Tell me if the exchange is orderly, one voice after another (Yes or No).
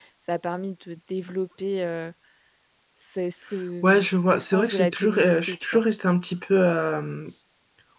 No